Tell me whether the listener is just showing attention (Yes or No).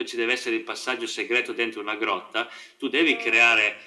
Yes